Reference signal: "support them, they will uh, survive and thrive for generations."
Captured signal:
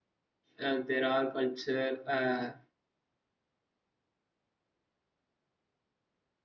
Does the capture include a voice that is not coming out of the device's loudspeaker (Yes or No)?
Yes